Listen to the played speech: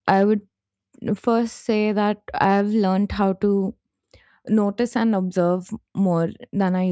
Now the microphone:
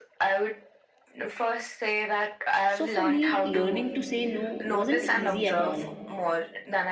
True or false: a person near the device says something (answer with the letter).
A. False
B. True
B